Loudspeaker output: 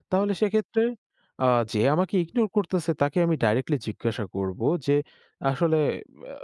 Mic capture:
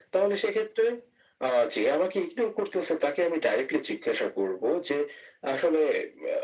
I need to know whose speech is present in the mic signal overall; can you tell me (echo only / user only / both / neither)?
echo only